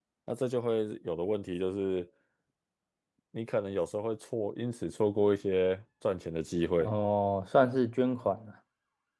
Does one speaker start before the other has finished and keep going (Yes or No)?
No